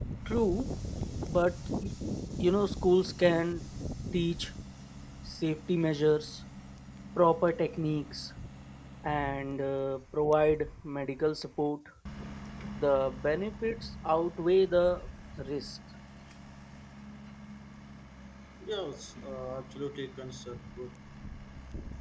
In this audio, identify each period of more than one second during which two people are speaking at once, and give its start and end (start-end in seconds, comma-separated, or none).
none